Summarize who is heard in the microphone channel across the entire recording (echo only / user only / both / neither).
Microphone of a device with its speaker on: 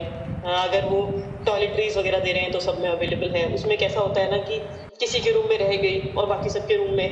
echo only